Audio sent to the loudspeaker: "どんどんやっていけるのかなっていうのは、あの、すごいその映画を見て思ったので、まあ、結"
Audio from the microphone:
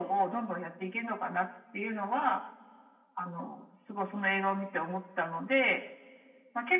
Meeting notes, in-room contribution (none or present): none